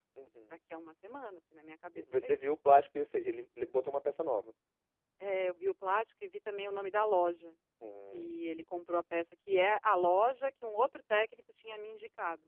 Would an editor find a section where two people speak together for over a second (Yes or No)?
No